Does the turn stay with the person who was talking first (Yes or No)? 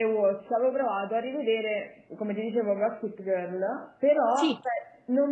Yes